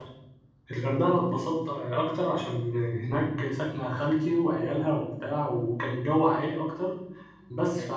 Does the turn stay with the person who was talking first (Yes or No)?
Yes